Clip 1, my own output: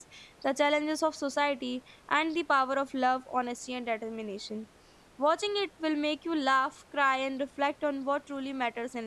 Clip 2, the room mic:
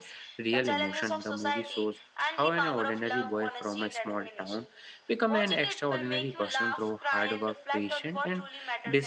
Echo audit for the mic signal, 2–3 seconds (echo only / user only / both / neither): both